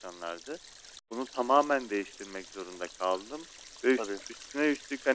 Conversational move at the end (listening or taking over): listening